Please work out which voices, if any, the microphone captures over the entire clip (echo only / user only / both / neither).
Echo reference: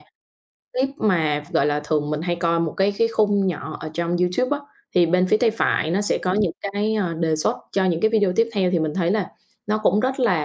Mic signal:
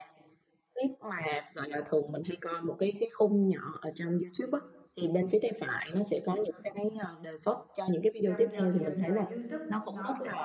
both